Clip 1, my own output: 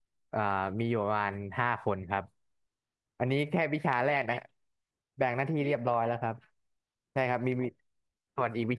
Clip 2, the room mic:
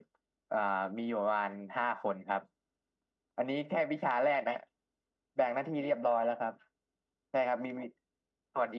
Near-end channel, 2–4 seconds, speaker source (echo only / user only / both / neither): echo only